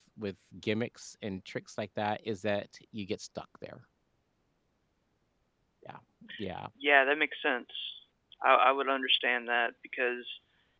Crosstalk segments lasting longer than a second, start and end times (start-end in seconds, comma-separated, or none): none